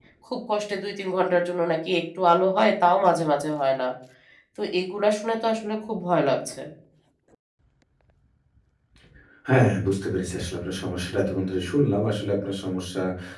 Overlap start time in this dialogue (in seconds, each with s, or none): none